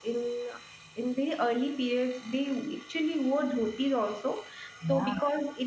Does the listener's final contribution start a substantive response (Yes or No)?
No